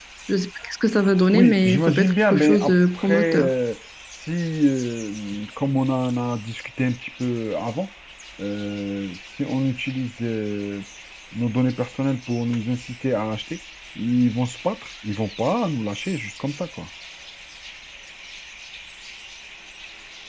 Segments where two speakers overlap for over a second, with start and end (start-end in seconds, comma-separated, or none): 1.3-3.5